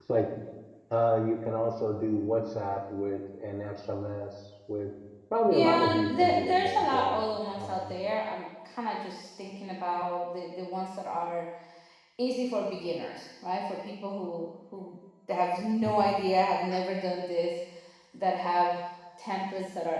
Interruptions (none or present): present